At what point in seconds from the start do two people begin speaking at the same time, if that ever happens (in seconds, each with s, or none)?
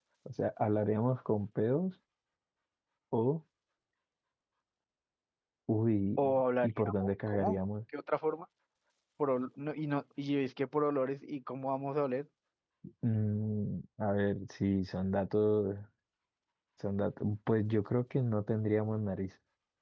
6.2 s